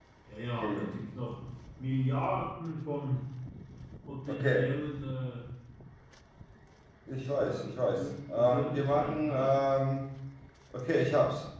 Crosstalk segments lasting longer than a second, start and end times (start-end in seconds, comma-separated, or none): 7.3-9.6